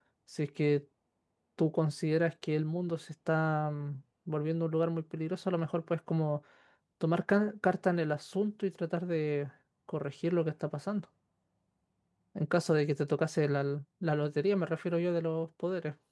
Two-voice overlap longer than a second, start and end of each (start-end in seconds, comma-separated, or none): none